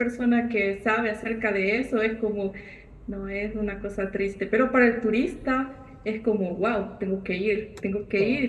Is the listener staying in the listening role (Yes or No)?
Yes